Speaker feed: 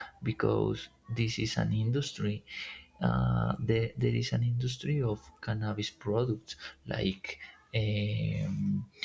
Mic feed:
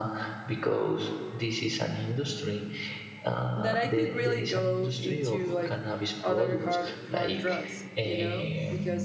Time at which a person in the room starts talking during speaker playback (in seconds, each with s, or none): 3.5 s